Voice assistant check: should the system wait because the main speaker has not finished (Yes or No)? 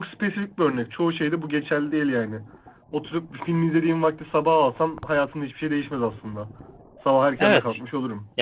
No